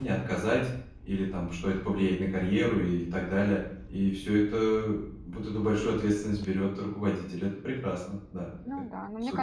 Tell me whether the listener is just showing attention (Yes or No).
No